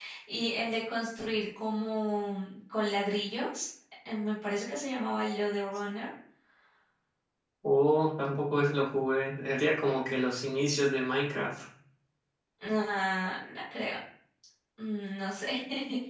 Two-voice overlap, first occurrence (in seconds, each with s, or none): none